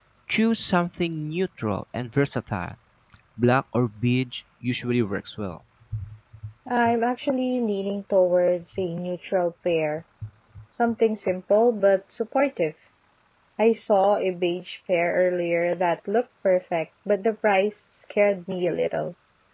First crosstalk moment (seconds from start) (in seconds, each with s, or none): none